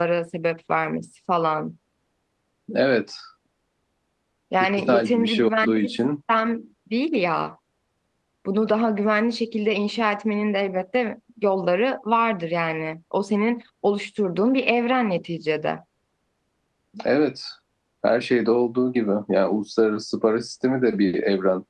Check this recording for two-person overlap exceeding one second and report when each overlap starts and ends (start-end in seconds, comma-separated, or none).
4.8-6.1